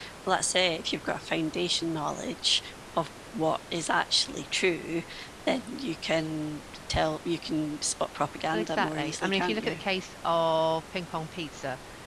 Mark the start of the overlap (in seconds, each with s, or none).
8.5 s